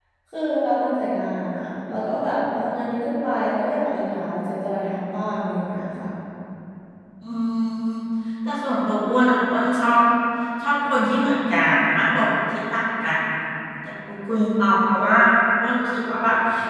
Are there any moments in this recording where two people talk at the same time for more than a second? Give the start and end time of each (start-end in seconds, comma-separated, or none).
none